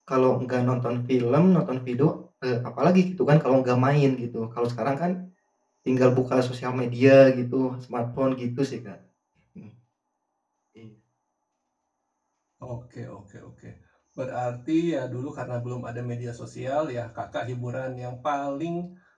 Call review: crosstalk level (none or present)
none